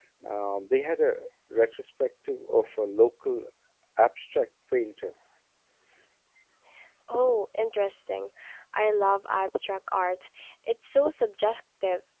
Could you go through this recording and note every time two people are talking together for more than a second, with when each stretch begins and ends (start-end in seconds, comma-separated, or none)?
none